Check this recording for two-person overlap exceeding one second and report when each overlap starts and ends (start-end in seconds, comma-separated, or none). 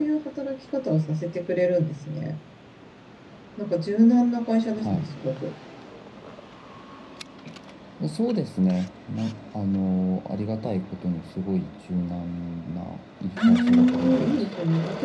13.2-14.5